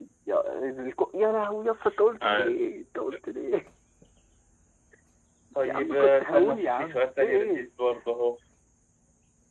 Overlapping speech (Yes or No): Yes